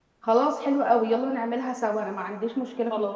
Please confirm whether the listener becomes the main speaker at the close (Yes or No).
Yes